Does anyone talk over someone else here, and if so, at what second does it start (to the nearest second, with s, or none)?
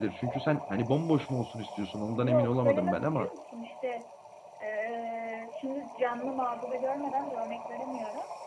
2 s